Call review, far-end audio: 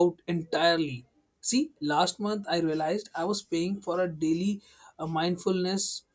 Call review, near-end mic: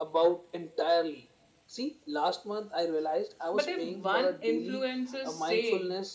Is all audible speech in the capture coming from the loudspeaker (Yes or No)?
No